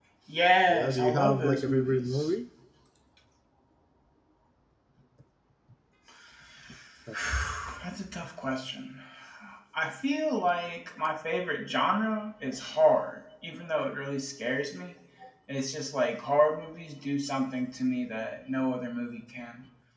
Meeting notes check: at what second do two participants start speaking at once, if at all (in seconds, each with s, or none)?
0.7 s